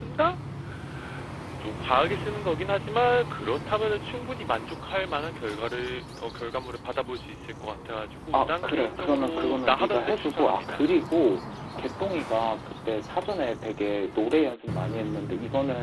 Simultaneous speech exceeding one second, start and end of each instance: 8.3-10.8

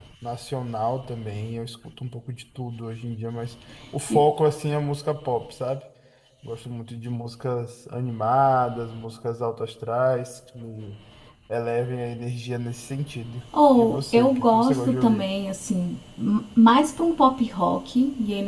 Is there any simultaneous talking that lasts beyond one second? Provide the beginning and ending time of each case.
13.8-15.2

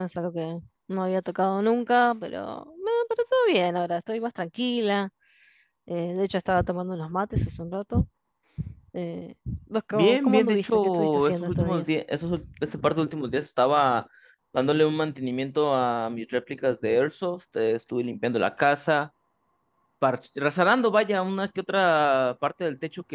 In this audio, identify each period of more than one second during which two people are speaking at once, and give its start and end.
9.9-11.8

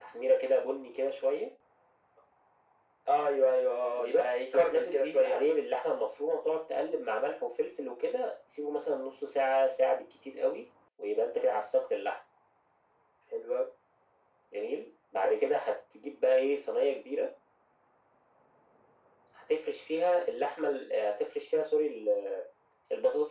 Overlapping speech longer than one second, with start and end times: 3.9-5.4

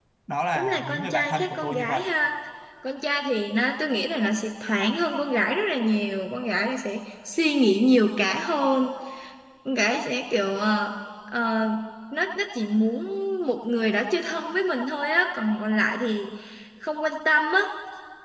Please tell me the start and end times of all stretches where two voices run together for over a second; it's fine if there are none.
0.5-2.0

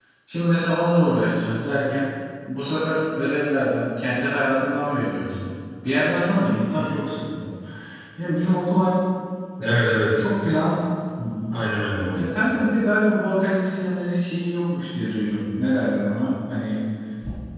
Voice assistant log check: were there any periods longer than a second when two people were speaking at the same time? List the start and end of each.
none

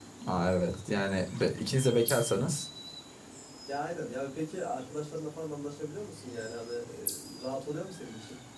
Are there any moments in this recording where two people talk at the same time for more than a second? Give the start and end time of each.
none

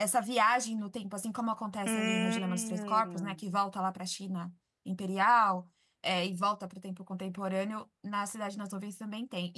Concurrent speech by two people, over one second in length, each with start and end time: 1.9-3.4

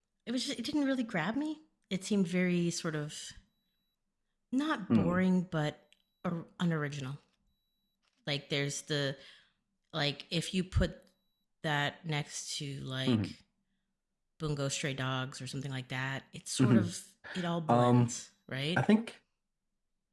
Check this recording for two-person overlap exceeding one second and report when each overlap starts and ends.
none

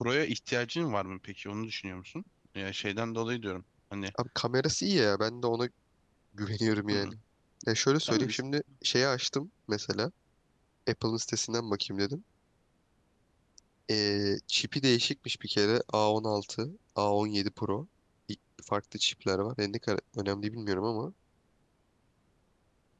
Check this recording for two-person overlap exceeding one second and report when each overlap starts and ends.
none

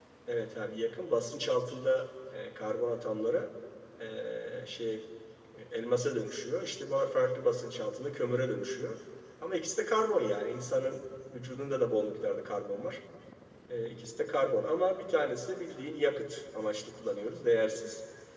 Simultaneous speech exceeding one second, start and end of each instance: none

